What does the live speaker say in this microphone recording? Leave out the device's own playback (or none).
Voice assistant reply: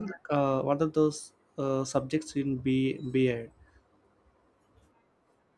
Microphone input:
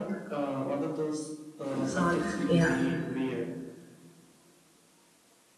and all that yeah